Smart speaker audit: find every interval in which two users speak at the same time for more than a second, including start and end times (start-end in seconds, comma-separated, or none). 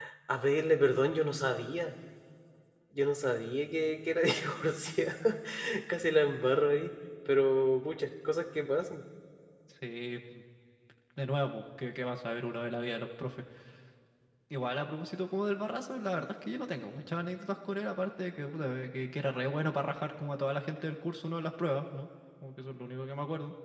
none